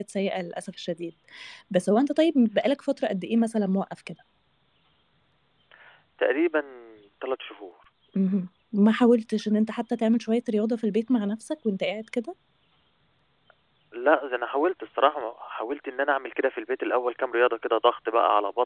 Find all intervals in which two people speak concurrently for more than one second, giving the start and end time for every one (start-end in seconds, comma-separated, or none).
none